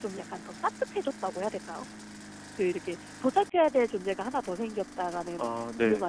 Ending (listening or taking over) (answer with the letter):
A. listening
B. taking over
A